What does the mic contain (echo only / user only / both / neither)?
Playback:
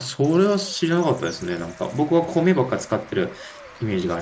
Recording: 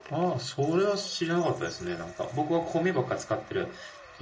echo only